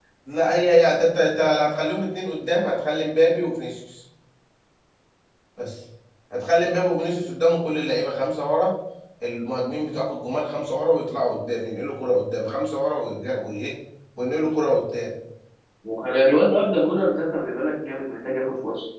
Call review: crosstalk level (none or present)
none